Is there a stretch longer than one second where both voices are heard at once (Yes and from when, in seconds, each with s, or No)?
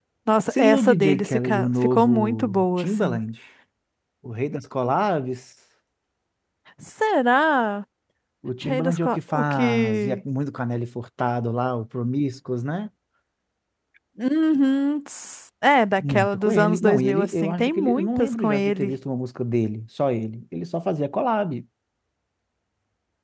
Yes, from 0.5 s